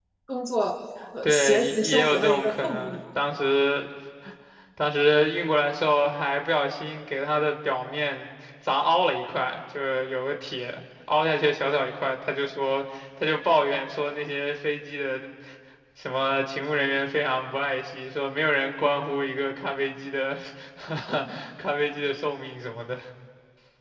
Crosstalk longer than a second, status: present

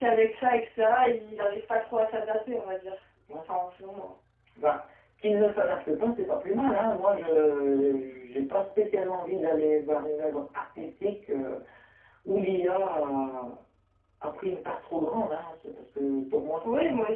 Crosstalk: none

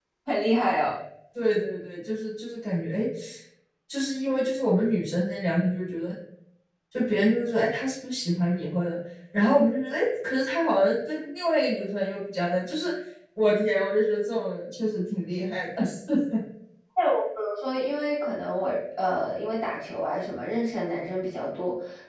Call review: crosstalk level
none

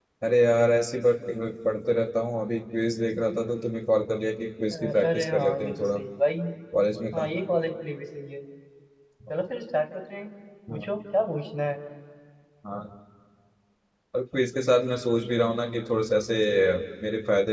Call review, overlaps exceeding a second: present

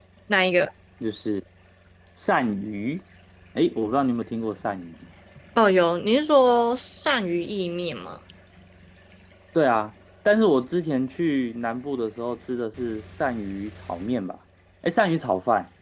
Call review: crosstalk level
none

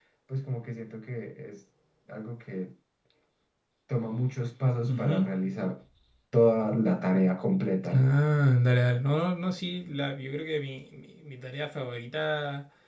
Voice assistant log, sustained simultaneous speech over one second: none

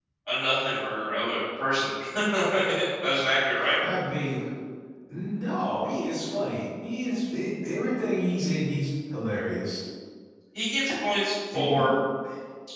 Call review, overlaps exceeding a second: none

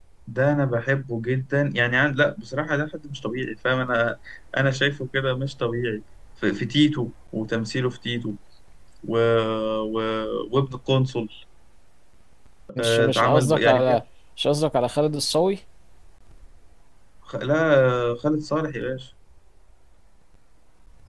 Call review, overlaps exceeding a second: present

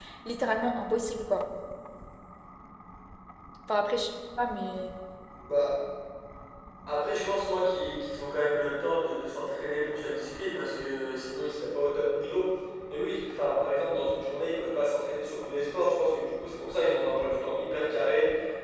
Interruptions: none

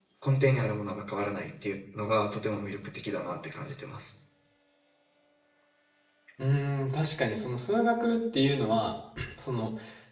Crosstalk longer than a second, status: none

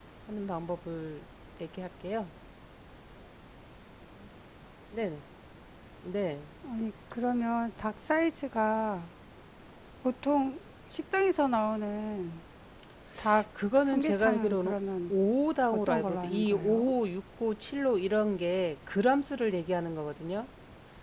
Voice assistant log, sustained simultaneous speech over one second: present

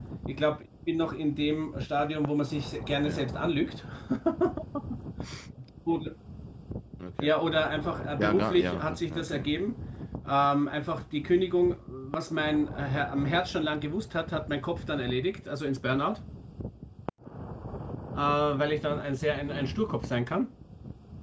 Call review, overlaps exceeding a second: present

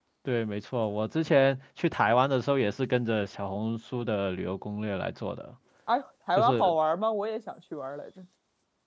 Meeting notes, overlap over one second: none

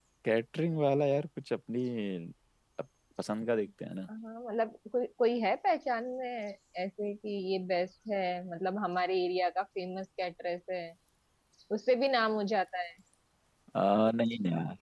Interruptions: none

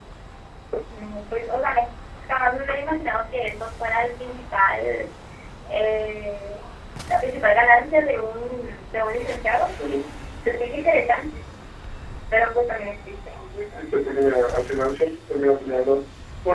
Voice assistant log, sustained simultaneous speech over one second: none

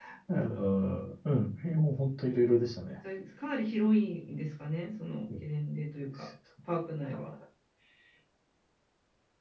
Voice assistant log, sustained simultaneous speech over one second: none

